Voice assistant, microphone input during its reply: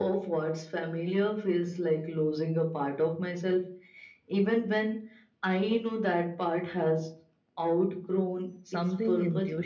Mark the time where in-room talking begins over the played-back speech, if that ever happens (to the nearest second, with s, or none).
9 s